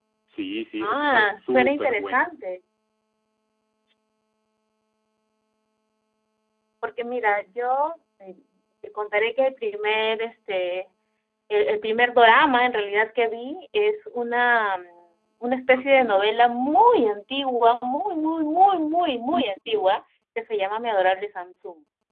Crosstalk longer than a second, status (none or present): present